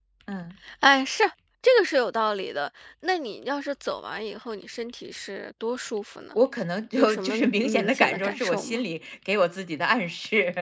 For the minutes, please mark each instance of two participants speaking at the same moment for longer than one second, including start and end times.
7.0-8.8

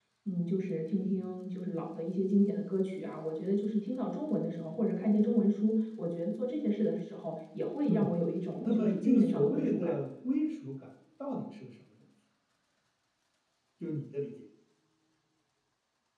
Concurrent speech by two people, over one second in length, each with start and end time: 8.6-10.0

